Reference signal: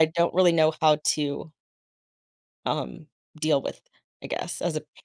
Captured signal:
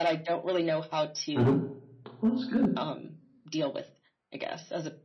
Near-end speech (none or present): present